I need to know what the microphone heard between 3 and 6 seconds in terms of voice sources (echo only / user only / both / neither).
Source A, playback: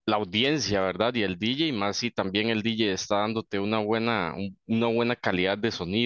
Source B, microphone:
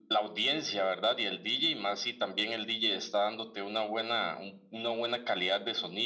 echo only